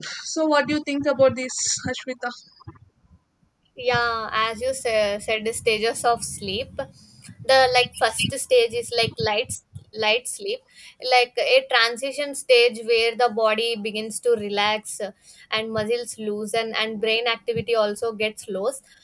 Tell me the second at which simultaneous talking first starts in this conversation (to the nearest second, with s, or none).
none